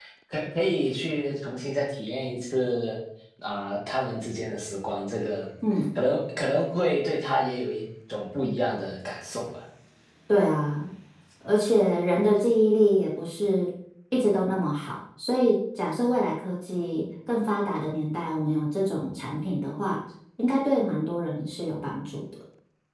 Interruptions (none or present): none